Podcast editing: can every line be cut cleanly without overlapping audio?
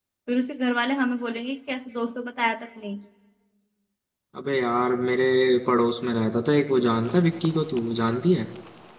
Yes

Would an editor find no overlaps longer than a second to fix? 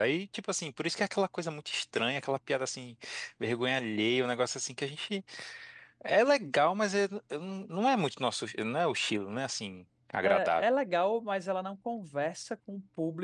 Yes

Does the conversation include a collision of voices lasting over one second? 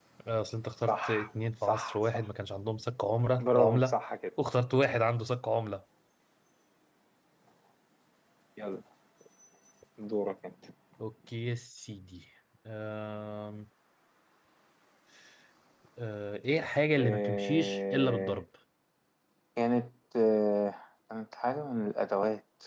Yes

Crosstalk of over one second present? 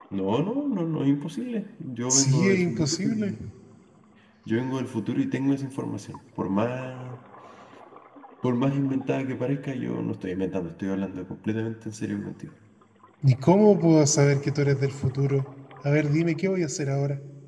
Yes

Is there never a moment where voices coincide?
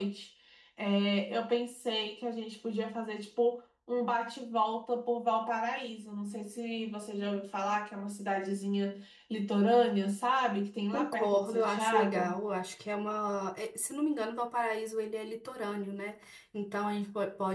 No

